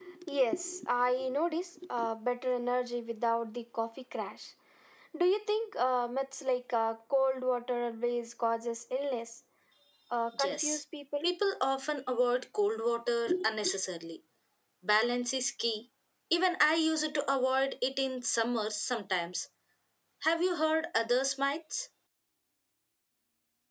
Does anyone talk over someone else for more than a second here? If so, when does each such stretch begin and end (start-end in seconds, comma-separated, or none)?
none